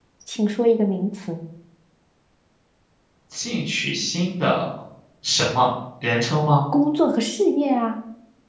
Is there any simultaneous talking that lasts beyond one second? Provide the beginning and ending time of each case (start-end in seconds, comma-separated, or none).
none